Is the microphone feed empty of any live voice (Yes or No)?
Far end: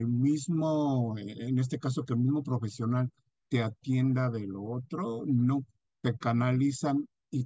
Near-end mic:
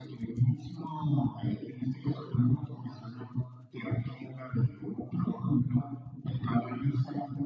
Yes